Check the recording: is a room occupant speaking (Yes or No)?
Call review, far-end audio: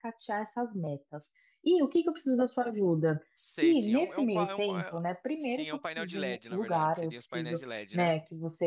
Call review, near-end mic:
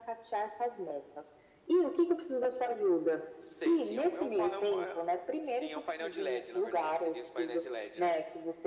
No